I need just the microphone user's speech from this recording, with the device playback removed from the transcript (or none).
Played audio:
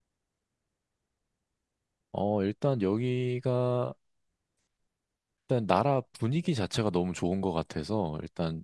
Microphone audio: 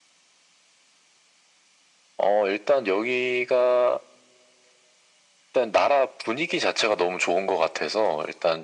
none